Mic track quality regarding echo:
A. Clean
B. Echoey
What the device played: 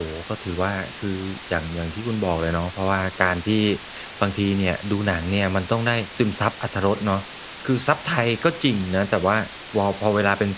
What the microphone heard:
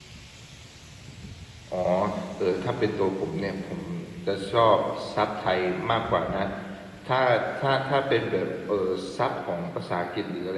A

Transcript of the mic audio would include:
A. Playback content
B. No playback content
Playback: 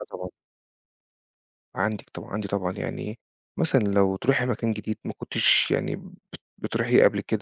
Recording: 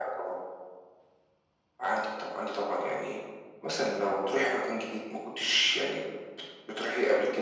A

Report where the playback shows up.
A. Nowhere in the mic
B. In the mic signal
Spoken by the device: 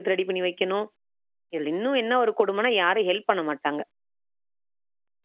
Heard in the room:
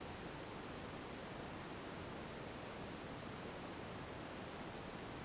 A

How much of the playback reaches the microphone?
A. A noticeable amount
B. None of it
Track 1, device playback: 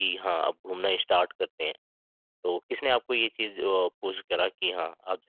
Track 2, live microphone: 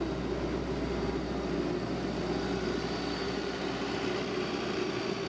B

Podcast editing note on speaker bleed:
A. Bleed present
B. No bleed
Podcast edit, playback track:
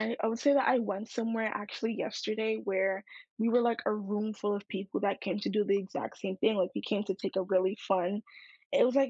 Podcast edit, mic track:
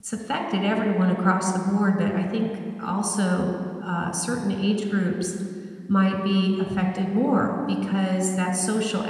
B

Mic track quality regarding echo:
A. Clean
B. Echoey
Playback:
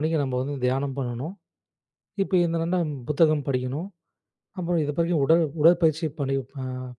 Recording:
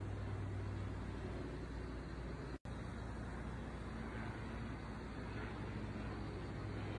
A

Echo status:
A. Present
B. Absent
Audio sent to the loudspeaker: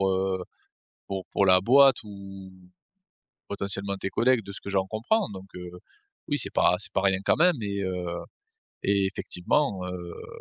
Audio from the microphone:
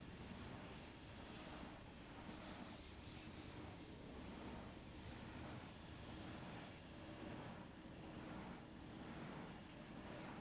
B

